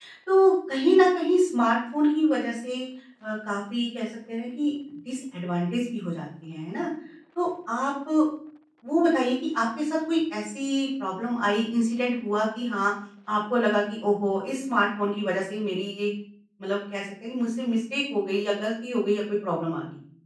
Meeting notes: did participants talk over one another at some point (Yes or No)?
No